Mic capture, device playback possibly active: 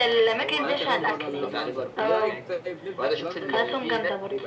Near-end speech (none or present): present